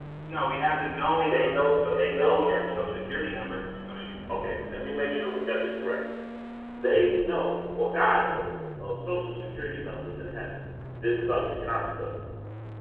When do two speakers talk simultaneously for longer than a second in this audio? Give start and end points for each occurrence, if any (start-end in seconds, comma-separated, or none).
1.3-3.5